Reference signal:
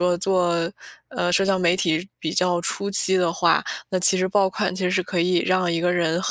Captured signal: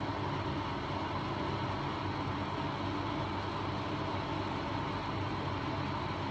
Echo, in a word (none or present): none